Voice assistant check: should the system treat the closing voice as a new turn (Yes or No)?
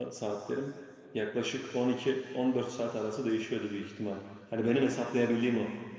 No